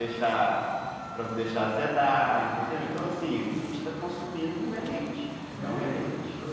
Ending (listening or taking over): taking over